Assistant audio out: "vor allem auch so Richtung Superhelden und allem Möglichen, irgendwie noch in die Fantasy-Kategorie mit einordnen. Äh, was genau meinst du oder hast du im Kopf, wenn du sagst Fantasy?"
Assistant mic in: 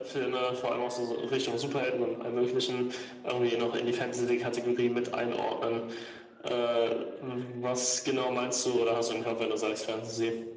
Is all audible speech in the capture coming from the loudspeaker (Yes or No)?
Yes